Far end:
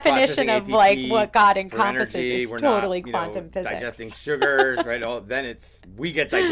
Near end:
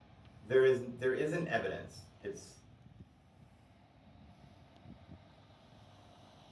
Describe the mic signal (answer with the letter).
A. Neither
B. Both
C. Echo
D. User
D